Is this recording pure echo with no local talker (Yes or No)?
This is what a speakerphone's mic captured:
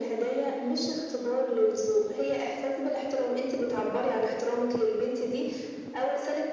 Yes